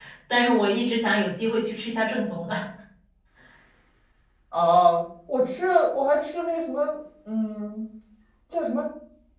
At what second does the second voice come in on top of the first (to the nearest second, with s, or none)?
none